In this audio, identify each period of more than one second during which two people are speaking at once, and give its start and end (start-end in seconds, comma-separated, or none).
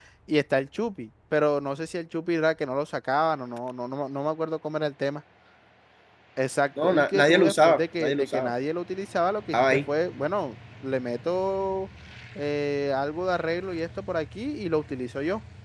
6.8-8.5